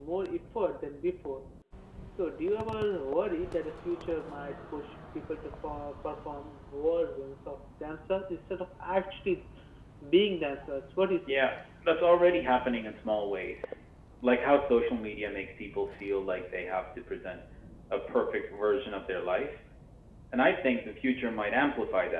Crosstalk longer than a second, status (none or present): none